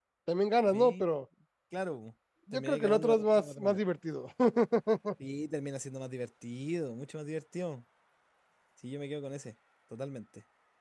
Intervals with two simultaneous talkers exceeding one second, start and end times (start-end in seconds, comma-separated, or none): 2.5-3.8